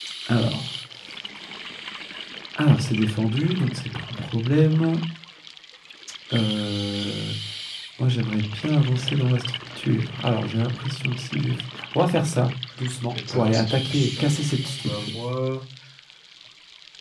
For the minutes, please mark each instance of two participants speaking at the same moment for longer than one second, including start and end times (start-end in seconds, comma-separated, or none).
13.3-15.1